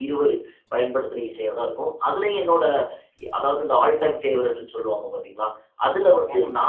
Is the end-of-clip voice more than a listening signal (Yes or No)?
No